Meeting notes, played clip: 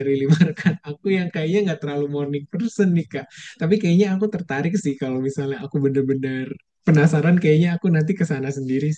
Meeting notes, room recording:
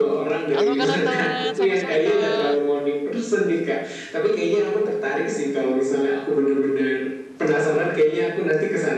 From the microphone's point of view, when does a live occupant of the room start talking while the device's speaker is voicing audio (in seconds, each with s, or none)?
0.5 s